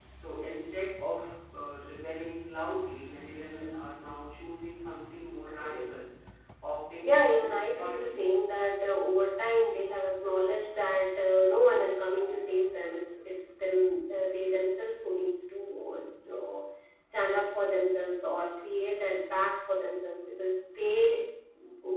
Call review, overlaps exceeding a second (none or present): present